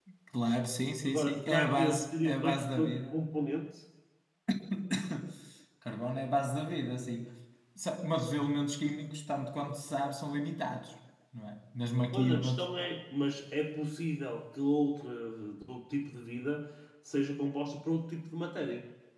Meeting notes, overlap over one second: present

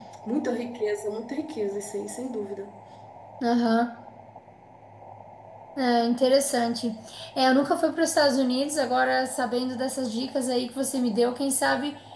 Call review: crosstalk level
none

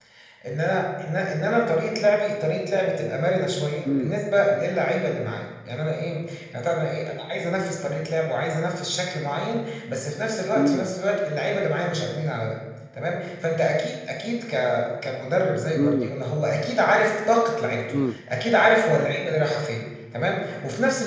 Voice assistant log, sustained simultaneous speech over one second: none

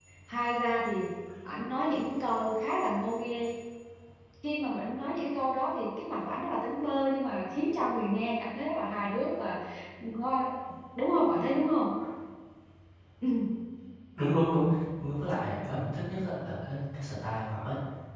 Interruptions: none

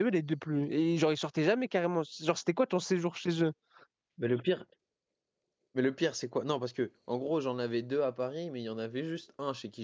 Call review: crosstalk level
none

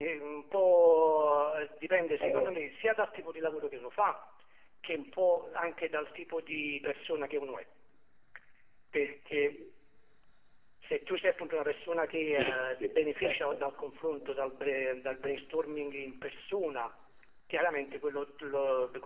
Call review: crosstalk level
present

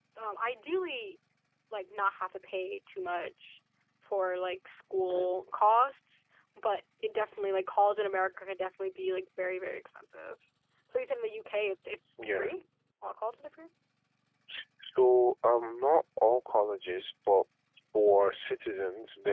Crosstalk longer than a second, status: none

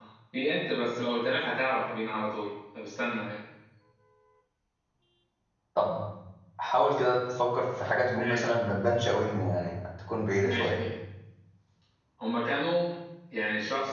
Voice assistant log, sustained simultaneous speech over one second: none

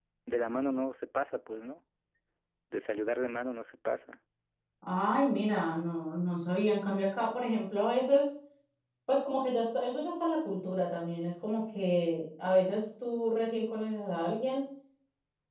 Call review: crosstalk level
none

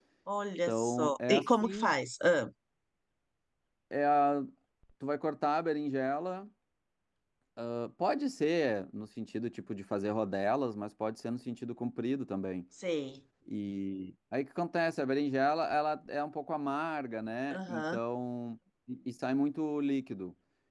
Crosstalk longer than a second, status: present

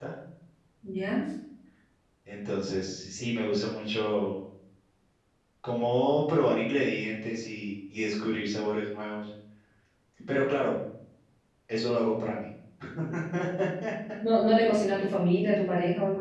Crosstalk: none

